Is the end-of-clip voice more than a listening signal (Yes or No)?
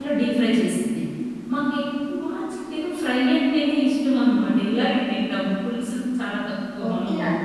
Yes